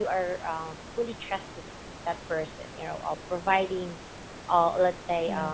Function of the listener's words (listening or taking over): taking over